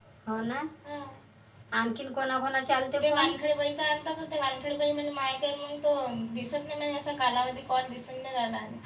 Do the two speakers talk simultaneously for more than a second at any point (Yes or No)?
No